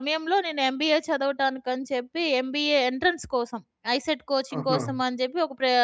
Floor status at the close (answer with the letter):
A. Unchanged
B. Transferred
A